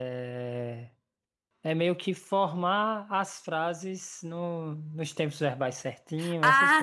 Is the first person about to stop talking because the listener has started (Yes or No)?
Yes